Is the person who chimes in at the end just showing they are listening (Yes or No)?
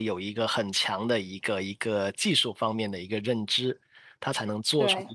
Yes